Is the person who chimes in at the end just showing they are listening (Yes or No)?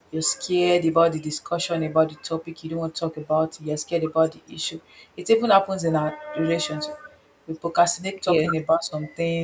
Yes